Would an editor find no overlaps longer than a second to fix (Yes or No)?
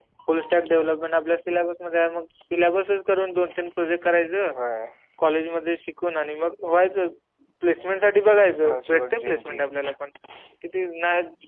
No